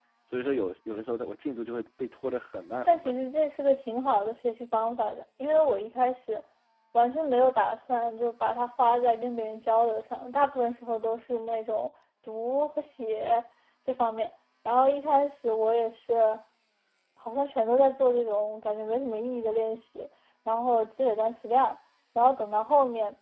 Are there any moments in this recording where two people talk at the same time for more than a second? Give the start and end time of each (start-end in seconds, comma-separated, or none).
none